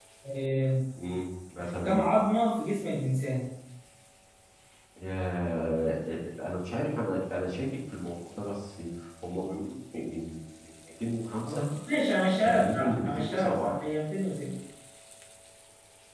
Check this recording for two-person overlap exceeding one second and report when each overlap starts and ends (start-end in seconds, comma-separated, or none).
12.4-13.8